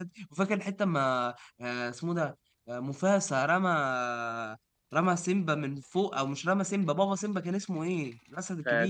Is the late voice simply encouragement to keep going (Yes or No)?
No